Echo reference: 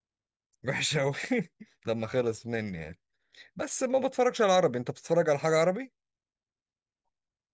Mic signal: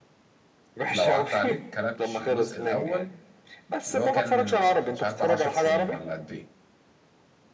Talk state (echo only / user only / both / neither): both